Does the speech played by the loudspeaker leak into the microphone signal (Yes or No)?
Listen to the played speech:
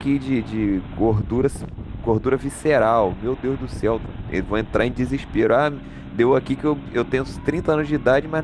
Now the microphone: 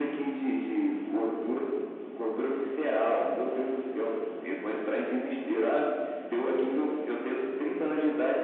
Yes